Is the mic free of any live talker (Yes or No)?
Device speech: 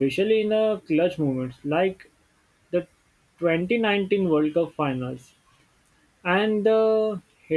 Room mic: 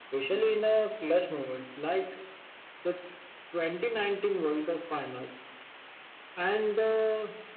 Yes